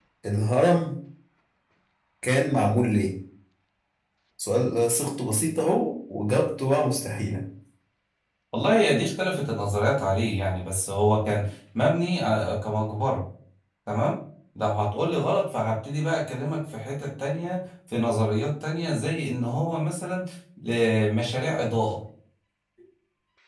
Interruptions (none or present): none